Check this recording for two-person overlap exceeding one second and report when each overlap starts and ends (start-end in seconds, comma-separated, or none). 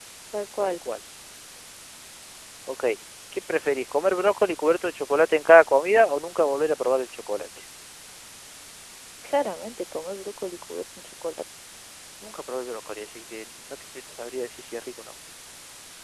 none